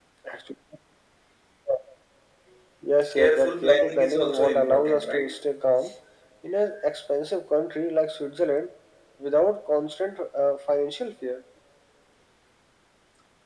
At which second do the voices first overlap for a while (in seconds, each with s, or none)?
3.1 s